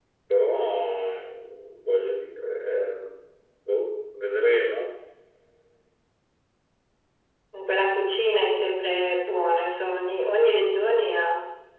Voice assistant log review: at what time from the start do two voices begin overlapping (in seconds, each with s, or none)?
none